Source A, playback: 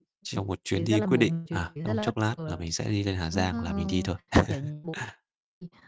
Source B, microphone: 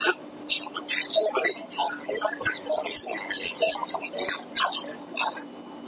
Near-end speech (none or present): none